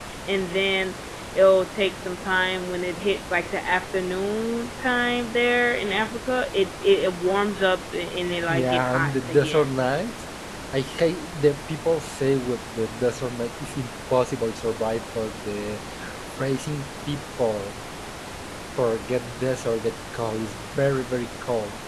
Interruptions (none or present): present